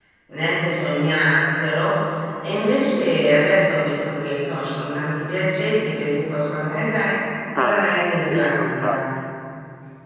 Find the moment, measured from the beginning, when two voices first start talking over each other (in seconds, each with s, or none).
7.5 s